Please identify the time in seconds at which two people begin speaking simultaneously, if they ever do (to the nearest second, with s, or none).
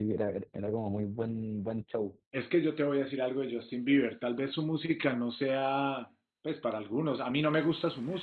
none